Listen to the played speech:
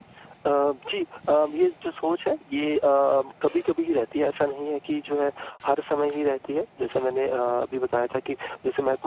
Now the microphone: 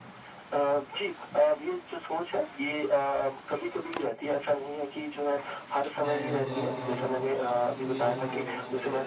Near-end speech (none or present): present